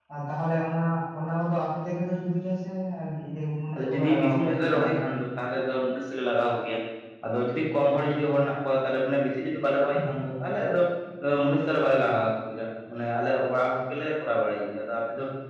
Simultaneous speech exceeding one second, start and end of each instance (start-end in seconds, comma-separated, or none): 3.7-5.0